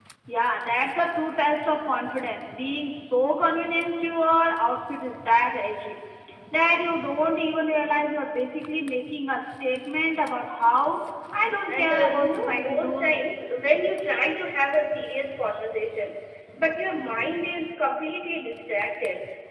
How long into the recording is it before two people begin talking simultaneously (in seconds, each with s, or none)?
11.7 s